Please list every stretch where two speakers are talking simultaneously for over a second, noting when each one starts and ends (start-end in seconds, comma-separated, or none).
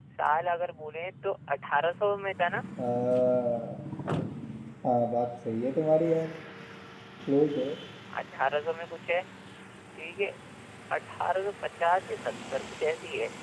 none